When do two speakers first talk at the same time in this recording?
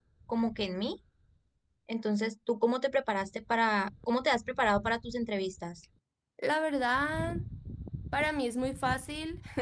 none

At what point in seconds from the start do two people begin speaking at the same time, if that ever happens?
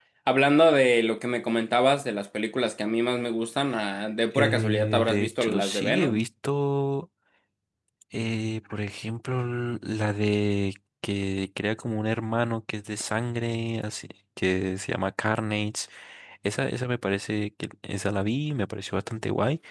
4.3 s

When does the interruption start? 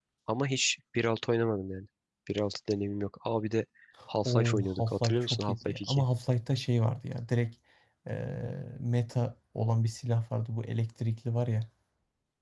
4.2 s

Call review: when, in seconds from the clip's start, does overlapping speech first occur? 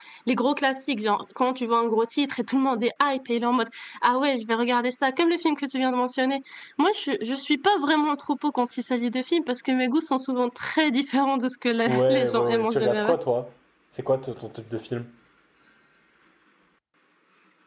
11.9 s

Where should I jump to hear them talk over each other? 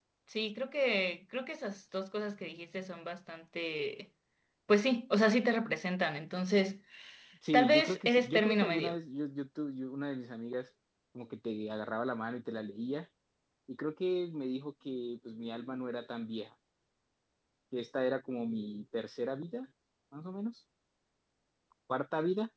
7.5 s

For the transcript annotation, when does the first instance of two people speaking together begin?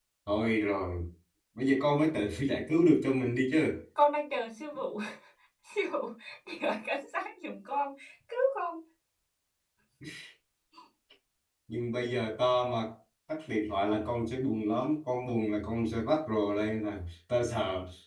none

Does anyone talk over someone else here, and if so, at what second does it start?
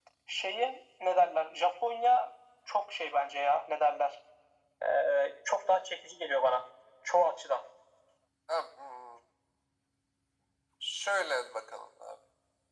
none

